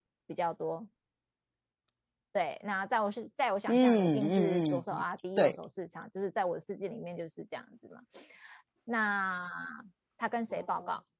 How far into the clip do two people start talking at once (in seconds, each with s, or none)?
3.7 s